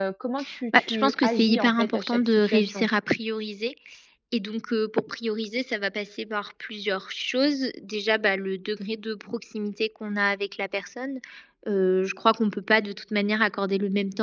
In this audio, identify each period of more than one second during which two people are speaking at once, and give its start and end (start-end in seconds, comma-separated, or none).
0.8-2.9